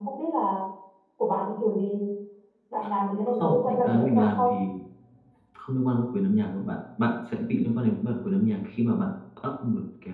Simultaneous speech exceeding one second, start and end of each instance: 3.3-4.5

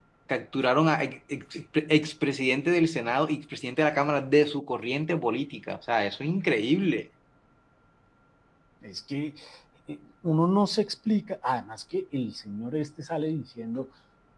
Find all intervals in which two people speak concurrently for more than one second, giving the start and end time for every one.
none

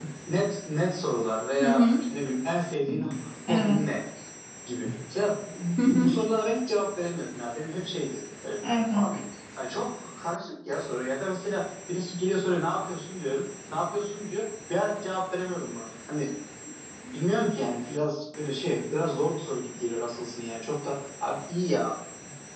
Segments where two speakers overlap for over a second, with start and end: none

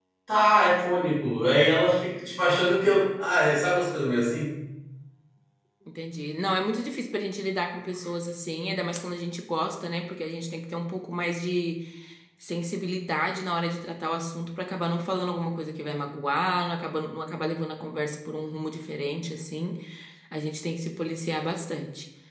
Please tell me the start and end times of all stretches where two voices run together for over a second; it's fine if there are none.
none

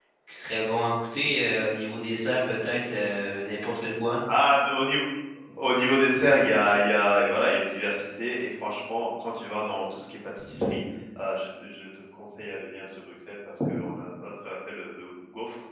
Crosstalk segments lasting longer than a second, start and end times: none

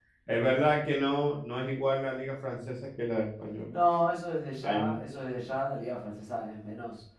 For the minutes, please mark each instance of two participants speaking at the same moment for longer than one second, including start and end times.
none

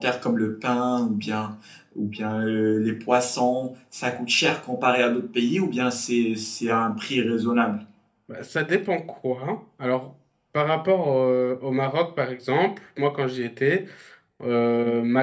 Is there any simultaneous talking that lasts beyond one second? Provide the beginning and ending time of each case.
none

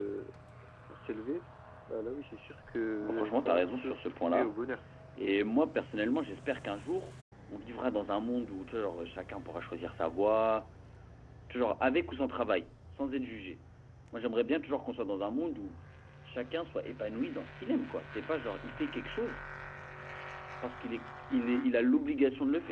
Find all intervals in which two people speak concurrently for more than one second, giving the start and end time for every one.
3.1-4.5

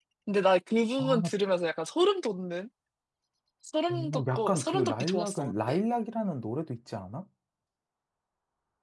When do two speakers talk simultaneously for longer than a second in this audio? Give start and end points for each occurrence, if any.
3.9-5.8

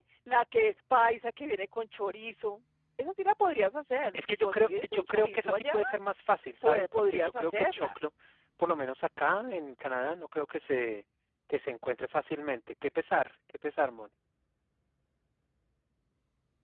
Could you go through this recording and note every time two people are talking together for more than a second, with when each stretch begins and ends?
4.2-5.8, 6.6-7.9

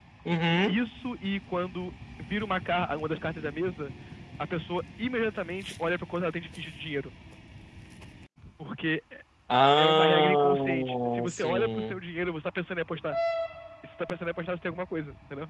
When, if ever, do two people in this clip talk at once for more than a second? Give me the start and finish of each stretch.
9.8-12.0

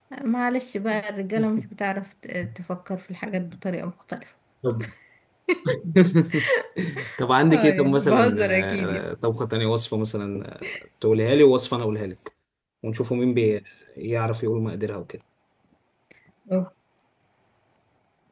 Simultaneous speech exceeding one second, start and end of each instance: 7.5-9.1

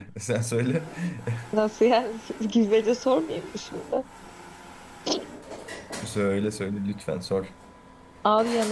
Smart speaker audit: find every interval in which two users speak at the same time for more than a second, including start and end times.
none

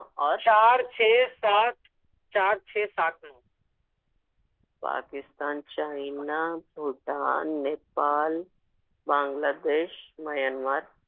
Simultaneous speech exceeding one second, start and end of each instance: none

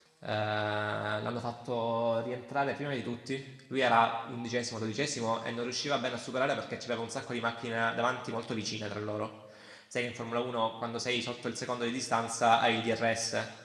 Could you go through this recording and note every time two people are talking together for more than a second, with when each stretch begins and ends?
none

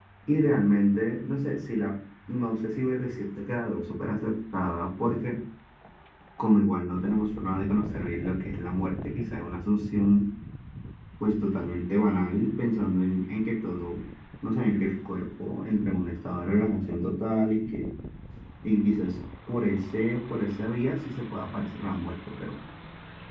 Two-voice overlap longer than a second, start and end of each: none

